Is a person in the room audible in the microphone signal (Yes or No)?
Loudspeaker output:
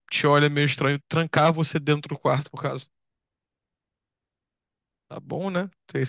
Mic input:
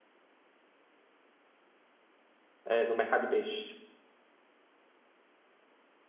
Yes